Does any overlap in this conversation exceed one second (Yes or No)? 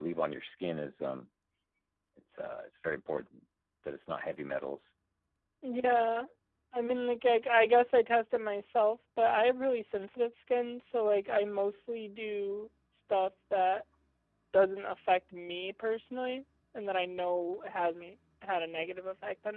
No